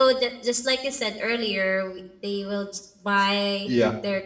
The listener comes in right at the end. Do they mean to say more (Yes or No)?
No